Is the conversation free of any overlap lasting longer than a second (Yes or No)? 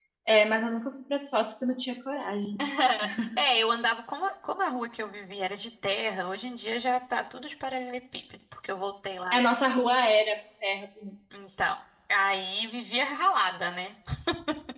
Yes